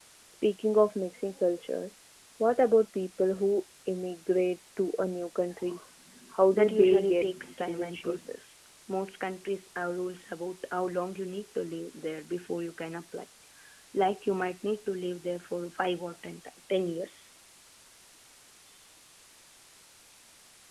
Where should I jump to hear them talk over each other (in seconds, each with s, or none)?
6.5 s